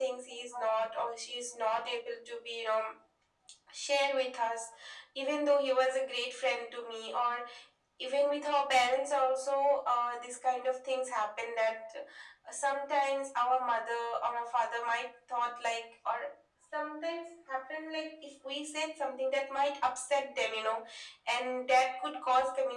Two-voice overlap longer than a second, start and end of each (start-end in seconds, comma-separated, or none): none